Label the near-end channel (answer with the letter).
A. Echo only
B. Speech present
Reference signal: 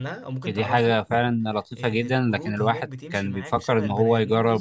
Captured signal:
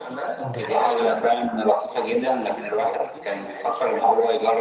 B